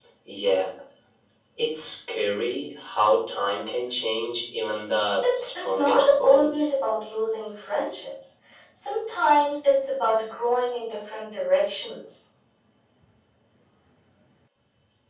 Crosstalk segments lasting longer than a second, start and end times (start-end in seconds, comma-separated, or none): 5.2-6.7